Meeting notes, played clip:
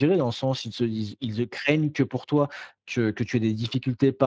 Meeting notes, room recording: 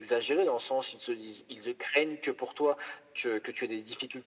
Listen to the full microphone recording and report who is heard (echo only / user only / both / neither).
echo only